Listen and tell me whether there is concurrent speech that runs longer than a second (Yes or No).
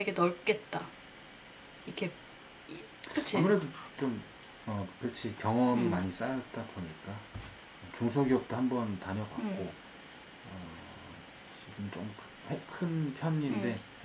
No